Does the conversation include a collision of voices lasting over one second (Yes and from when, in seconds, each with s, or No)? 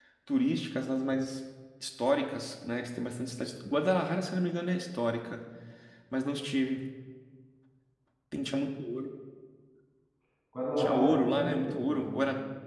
Yes, from 10.8 s